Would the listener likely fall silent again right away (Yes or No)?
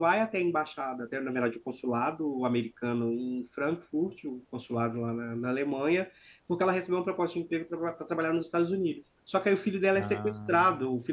Yes